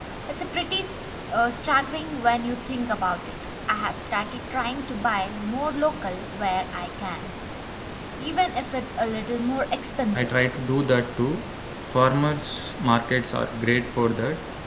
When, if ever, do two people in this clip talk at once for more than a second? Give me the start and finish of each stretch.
none

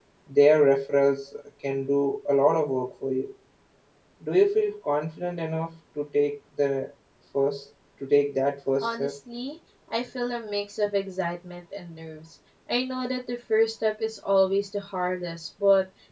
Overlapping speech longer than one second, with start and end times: none

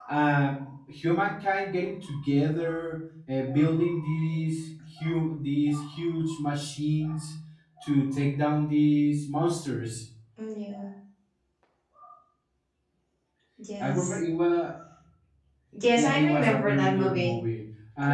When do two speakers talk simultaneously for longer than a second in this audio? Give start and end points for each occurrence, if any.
16.0-17.3

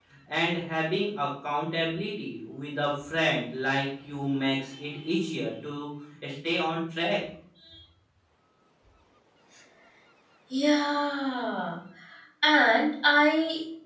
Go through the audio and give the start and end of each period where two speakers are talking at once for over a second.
none

